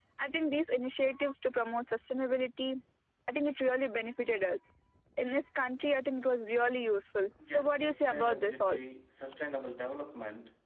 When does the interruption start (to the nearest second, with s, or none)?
7 s